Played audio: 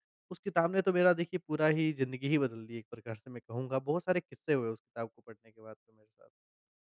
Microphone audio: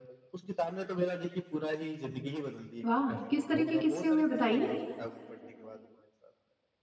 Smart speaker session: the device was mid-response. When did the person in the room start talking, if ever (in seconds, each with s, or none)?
2.9 s